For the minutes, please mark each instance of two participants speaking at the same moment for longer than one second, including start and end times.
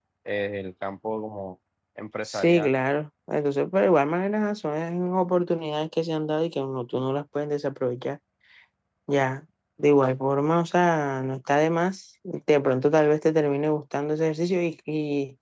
none

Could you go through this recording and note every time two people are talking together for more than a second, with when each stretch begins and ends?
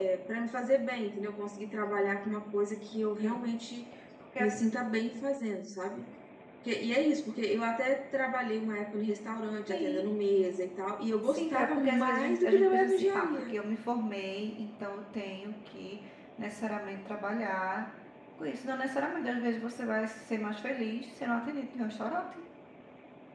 11.2-13.5

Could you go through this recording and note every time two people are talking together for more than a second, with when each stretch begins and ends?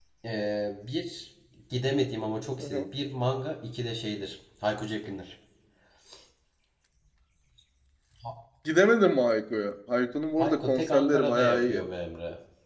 10.4-11.8

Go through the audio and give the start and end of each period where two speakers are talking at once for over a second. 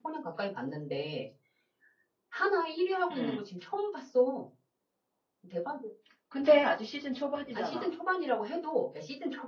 none

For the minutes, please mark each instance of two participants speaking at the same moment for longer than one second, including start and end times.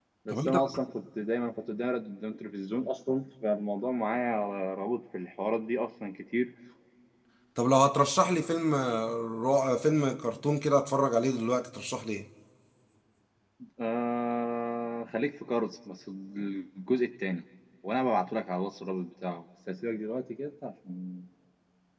none

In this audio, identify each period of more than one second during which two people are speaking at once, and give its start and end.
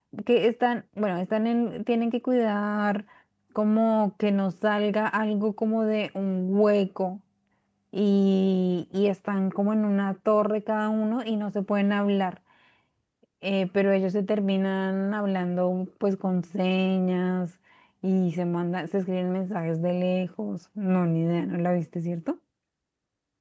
none

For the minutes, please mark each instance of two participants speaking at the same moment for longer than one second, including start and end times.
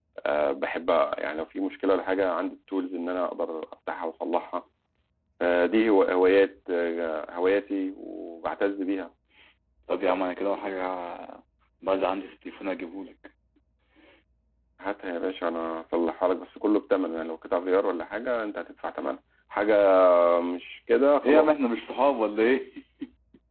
none

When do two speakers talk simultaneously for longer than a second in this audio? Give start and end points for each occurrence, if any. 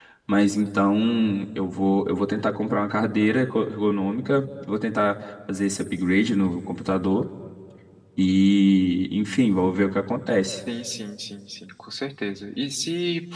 none

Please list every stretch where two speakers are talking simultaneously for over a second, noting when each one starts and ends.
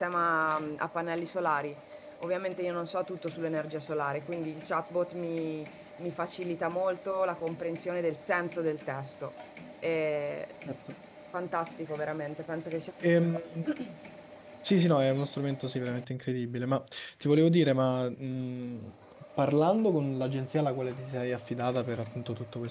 none

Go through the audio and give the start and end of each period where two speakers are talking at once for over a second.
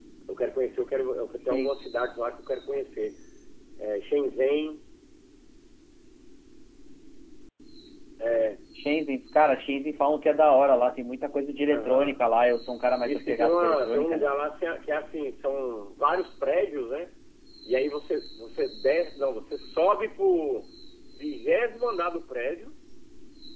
13.0-14.3

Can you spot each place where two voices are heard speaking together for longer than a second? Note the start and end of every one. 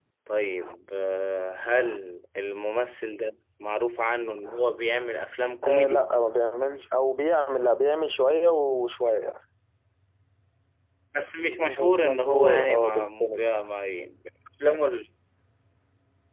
11.7-13.5

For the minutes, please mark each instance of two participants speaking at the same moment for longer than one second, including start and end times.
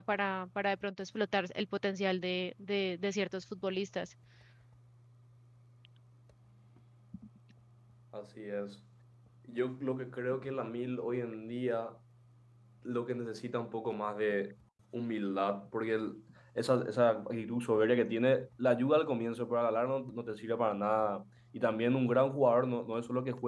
none

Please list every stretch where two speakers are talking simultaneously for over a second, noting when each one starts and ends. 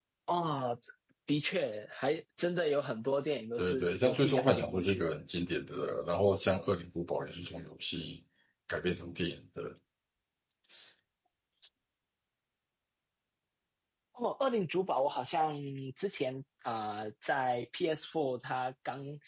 3.6-5.0

